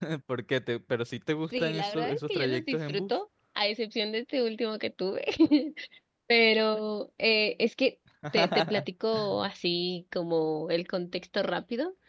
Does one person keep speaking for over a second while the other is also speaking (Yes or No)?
Yes